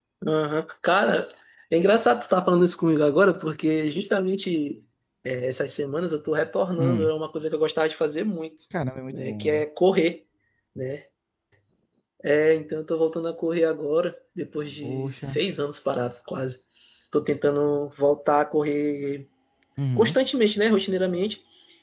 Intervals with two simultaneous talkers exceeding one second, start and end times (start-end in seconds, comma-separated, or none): none